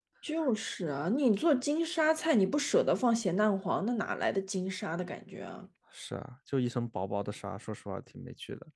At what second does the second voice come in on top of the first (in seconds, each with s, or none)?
none